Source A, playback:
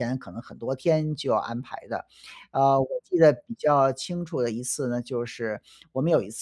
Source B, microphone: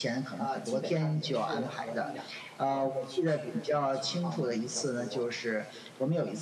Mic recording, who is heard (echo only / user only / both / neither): both